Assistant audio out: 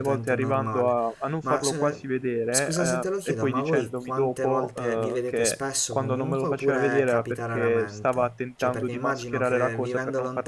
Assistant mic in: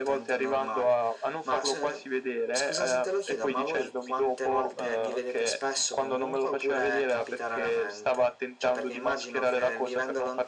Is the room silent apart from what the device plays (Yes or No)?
Yes